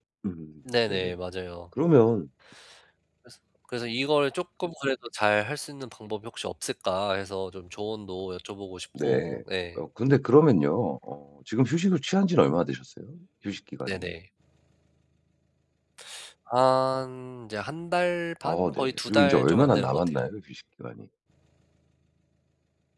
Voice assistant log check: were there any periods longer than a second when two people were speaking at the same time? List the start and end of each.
18.4-20.1

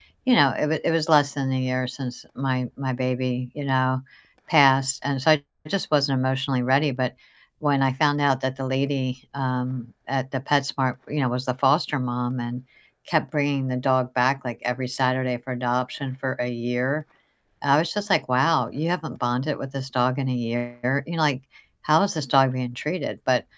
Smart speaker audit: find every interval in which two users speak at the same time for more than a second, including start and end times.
none

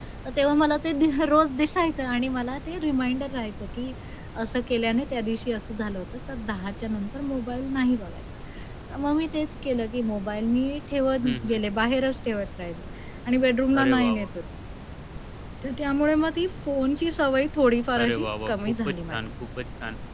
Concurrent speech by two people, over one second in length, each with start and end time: 18.0-19.2

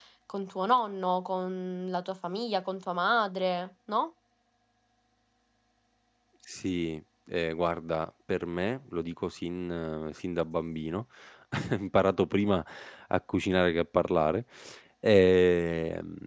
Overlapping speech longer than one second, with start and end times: none

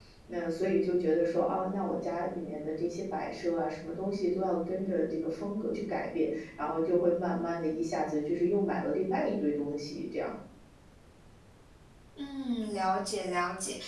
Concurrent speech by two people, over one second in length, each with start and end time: none

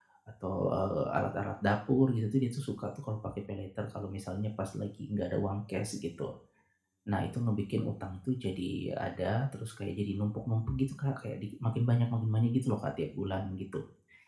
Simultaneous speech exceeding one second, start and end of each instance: none

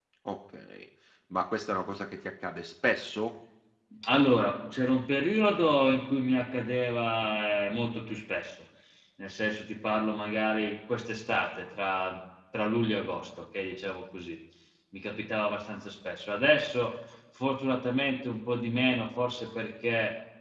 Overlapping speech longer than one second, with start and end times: none

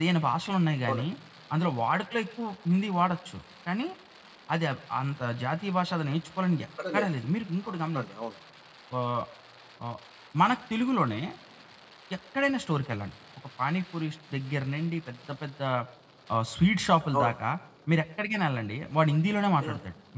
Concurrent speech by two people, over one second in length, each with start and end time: none

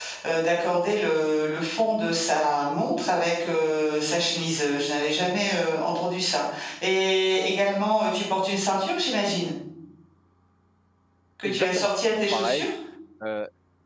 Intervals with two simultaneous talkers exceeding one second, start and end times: 11.4-12.7

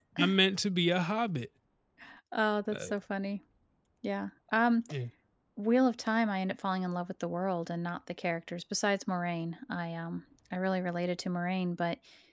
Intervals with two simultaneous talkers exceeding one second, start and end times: none

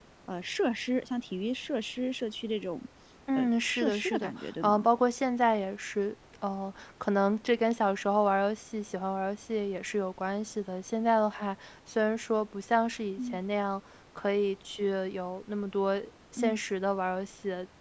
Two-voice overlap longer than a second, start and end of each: 3.4-4.8

